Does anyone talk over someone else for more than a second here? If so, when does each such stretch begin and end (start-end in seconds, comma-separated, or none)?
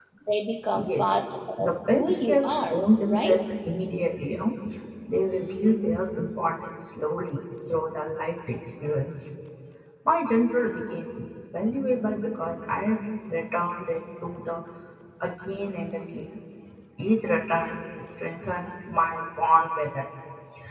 1.6-3.4